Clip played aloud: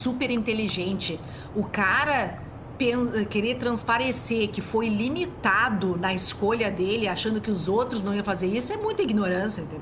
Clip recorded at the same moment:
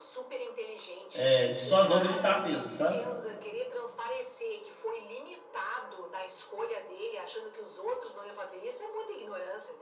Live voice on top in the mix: Yes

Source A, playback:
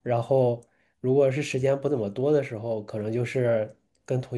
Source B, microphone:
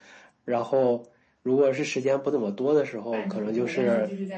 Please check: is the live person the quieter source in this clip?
Yes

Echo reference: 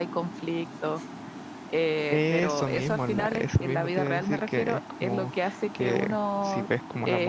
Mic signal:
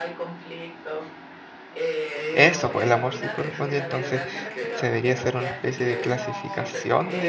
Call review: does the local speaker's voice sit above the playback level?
Yes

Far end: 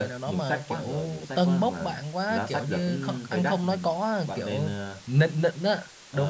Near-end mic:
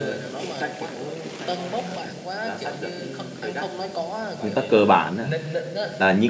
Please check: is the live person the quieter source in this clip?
No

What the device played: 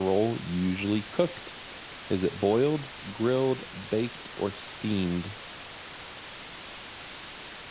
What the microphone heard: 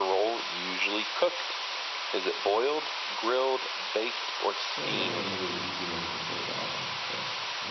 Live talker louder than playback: No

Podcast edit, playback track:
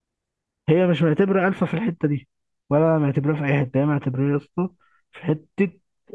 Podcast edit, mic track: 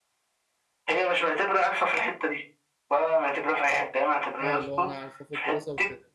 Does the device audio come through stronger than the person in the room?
Yes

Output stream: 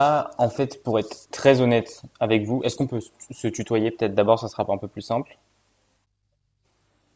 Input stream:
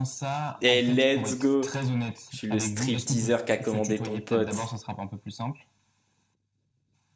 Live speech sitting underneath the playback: No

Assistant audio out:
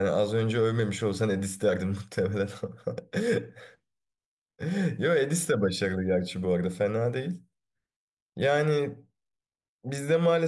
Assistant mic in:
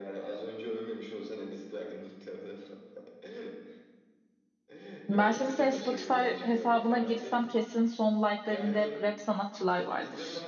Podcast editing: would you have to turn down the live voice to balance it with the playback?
Yes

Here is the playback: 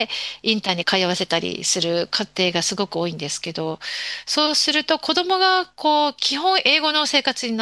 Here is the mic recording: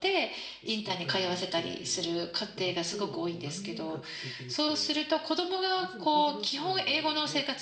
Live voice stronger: No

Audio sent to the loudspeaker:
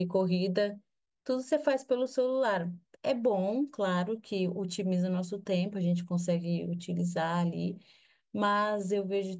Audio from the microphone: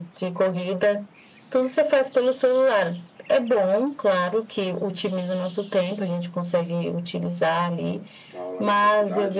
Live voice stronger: No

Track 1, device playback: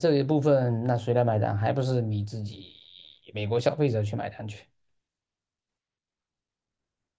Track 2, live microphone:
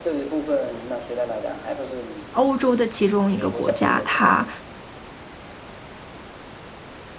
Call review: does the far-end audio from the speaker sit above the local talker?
No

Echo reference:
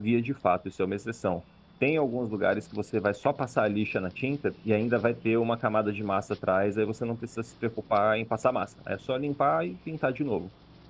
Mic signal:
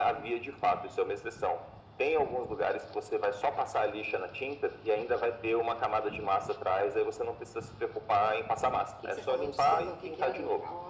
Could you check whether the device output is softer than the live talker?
No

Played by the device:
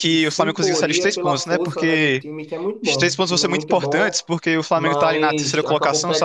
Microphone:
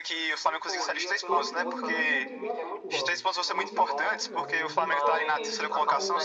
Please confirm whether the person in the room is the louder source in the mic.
No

